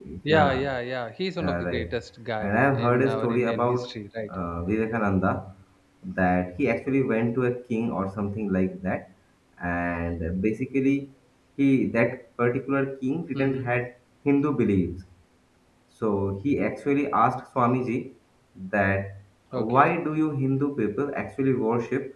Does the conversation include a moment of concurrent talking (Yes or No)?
Yes